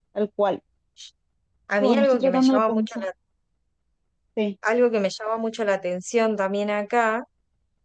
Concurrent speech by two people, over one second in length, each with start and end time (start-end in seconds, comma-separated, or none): 1.8-3.0